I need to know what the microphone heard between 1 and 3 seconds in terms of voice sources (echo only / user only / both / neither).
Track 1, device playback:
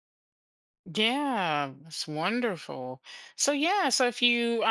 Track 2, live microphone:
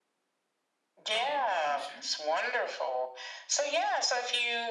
both